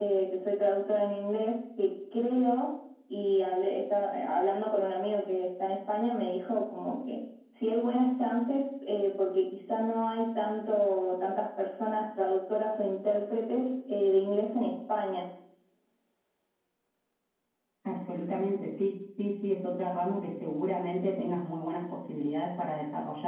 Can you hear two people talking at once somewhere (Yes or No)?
No